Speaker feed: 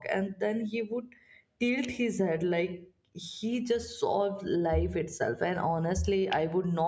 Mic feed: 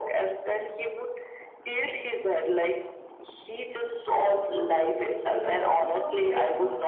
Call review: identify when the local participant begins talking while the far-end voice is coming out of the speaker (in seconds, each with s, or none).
5.2 s